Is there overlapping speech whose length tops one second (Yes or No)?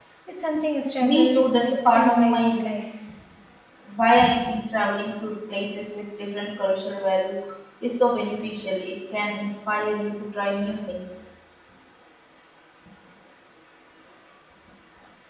Yes